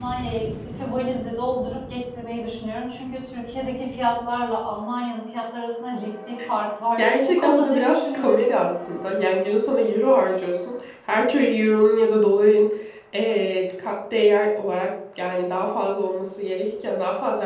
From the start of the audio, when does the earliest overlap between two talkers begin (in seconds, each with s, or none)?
7.0 s